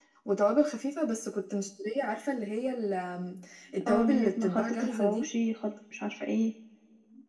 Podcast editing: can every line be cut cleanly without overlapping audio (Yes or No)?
No